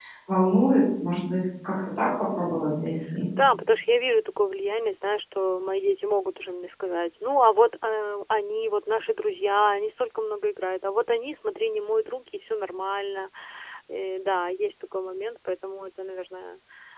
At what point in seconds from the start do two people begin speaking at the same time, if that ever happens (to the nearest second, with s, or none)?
none